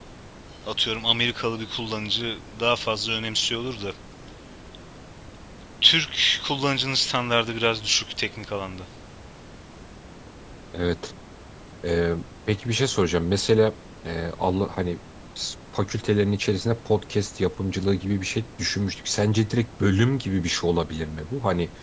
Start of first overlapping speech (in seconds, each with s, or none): none